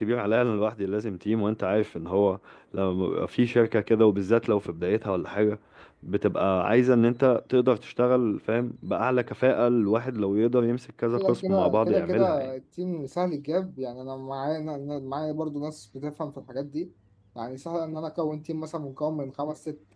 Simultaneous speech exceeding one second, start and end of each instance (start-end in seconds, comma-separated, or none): 11.2-12.5